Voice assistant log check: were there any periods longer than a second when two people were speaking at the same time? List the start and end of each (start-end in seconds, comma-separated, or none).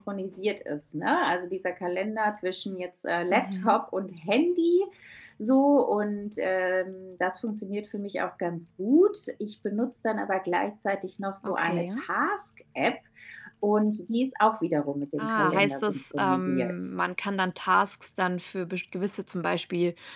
15.2-16.7